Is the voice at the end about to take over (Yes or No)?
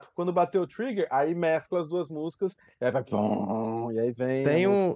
Yes